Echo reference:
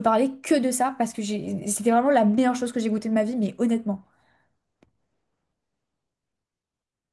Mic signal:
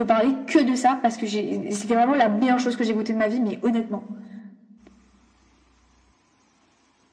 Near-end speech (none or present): none